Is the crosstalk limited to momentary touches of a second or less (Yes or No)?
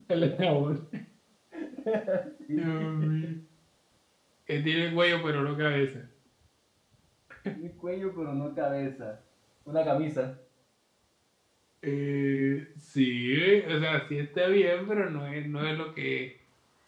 Yes